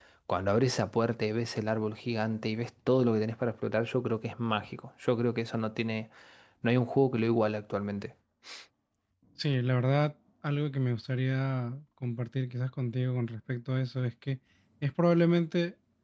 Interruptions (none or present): none